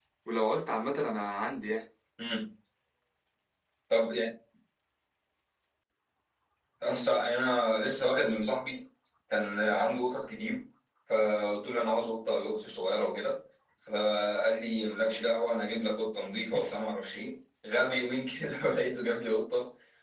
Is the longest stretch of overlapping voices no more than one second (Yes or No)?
Yes